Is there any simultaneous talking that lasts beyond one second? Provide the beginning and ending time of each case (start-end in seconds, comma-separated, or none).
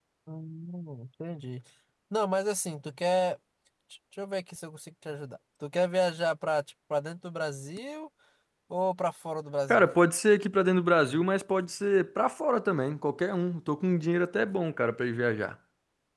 none